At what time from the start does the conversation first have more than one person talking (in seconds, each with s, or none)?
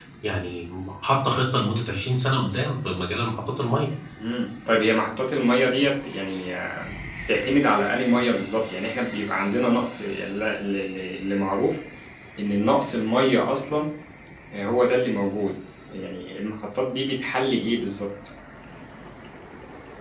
none